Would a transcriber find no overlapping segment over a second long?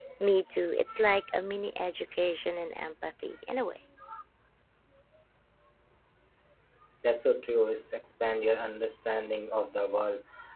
Yes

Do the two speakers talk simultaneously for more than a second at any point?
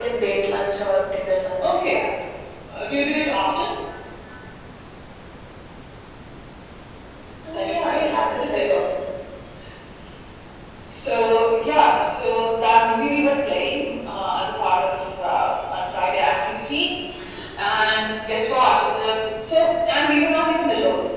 Yes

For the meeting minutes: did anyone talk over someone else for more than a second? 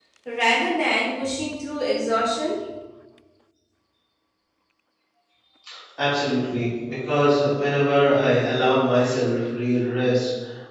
No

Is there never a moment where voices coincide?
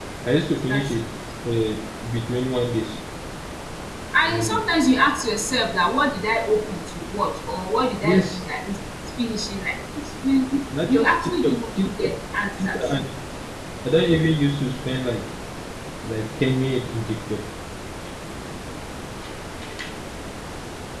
No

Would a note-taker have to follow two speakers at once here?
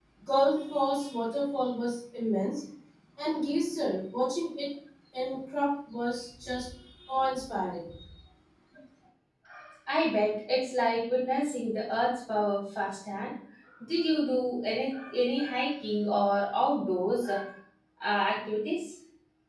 No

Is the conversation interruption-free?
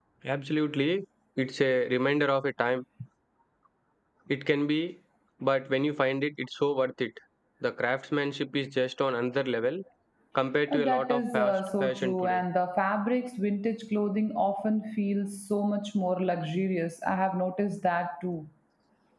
No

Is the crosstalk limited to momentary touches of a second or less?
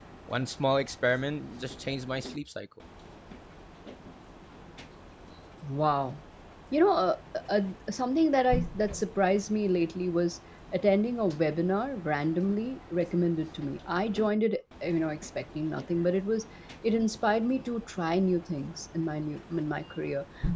Yes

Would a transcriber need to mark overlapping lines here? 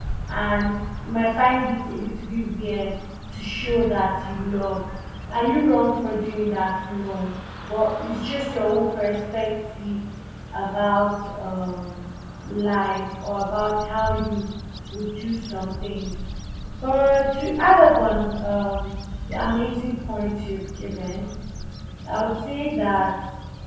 No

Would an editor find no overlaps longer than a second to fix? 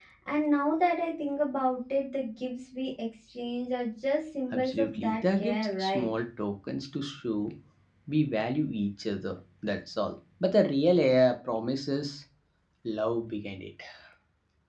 No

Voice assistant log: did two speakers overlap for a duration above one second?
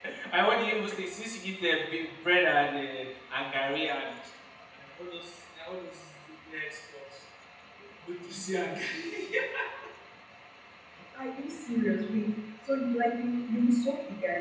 No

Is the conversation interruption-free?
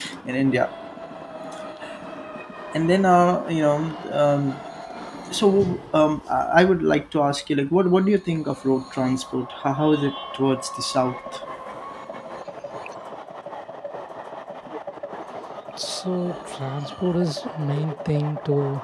Yes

